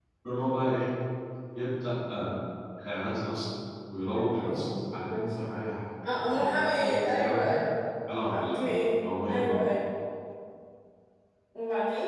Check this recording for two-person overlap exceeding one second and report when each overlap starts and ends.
6.2-7.5

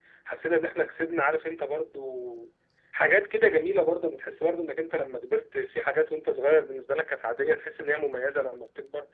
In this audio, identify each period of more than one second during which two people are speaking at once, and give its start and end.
none

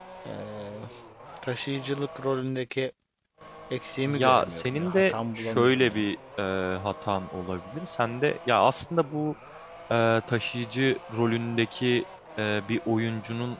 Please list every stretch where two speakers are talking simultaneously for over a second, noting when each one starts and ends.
4.1-6.0

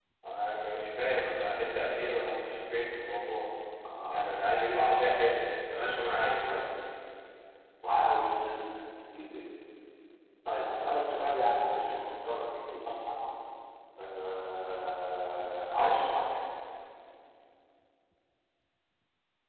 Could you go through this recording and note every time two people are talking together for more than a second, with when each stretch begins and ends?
none

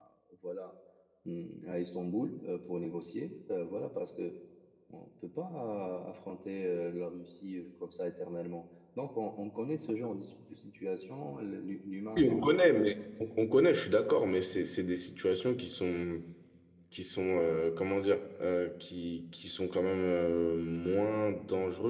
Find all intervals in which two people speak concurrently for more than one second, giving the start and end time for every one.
none

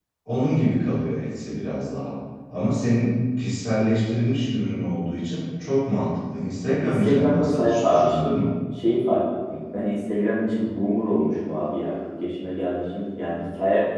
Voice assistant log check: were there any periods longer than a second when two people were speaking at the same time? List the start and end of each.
6.8-8.4

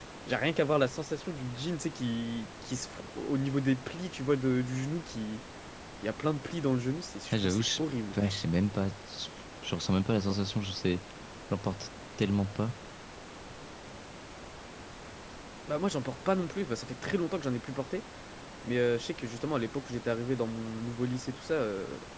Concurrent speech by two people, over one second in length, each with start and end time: none

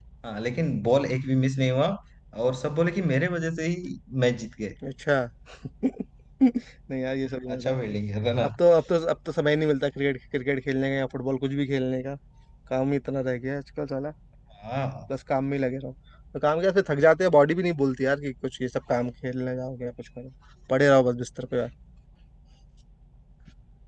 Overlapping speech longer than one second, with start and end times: none

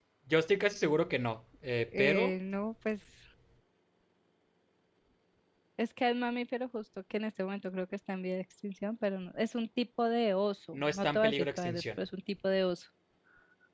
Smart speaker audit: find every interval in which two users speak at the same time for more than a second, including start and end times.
10.7-12.1

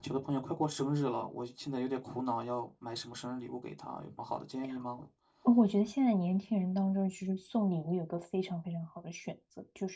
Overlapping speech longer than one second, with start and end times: none

